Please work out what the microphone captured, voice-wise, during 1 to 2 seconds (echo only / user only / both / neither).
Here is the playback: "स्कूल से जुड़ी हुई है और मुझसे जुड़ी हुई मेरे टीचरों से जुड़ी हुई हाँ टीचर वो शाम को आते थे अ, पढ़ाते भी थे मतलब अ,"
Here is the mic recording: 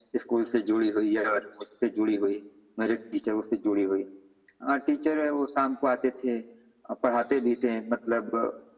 echo only